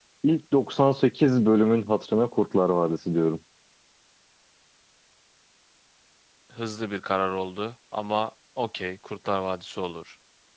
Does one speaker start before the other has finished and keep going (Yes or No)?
No